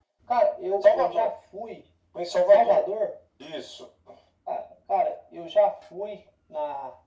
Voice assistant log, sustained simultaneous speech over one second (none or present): none